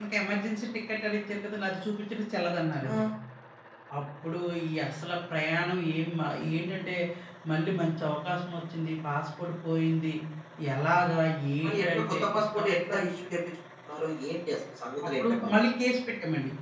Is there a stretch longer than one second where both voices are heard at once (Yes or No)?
Yes